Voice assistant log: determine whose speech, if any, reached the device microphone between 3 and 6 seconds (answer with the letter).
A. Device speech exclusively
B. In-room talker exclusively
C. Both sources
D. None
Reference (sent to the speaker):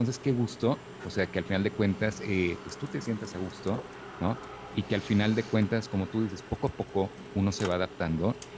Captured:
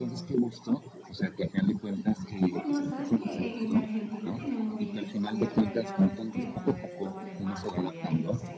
C